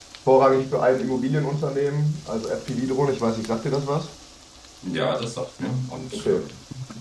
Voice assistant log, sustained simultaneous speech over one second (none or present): none